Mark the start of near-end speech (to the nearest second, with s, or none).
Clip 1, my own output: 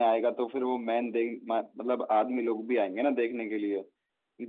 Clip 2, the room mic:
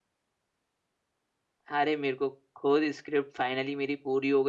2 s